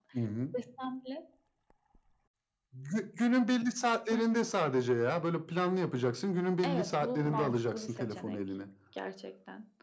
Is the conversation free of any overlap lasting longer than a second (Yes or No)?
No